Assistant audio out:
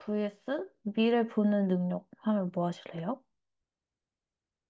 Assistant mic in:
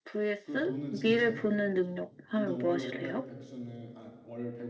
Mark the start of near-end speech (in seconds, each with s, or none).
0.4 s